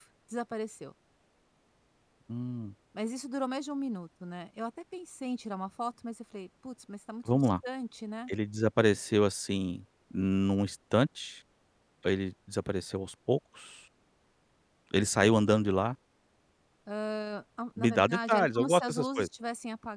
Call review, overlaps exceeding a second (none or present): present